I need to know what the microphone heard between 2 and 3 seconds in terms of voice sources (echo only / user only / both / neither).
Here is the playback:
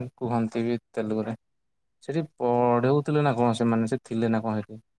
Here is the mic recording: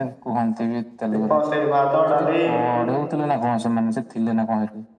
both